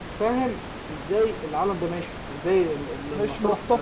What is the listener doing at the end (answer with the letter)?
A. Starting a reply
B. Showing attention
A